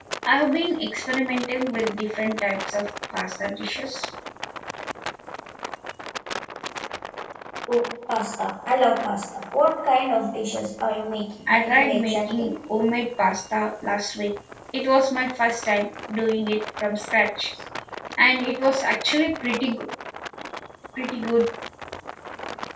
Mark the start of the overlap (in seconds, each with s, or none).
11.5 s